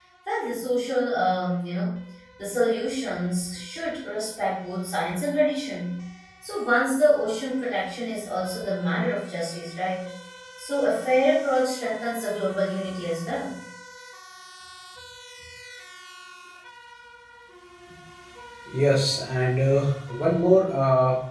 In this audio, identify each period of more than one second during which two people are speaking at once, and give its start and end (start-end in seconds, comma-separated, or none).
none